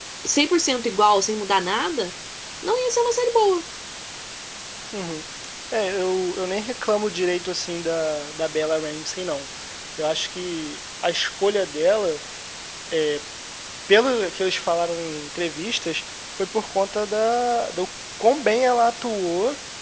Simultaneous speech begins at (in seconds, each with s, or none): none